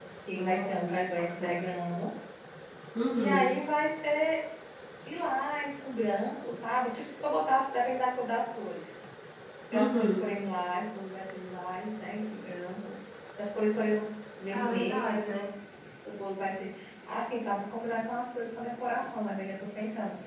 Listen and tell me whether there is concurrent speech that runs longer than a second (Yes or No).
Yes